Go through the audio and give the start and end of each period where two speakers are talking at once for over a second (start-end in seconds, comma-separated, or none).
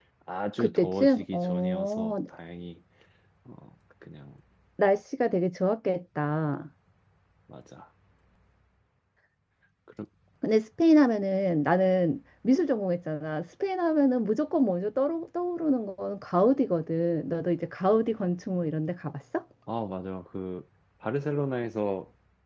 0.6-2.1